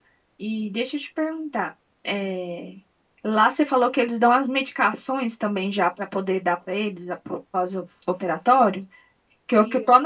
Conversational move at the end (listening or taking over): listening